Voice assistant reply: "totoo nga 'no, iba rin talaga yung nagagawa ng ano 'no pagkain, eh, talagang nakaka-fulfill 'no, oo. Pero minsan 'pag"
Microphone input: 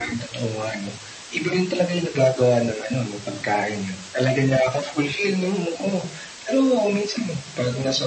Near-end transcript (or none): none